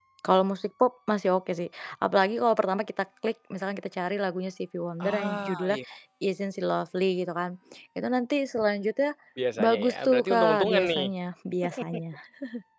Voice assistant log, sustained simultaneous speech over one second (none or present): present